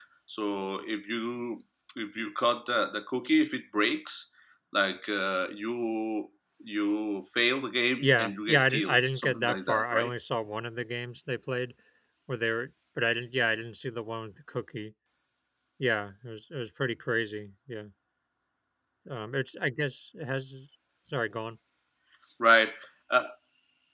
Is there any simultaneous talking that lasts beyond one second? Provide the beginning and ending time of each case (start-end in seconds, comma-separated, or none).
8.0-10.1